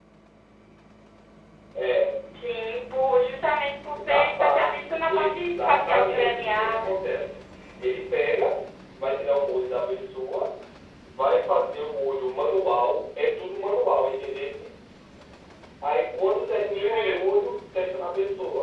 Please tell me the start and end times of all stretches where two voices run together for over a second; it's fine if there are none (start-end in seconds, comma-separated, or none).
4.0-6.9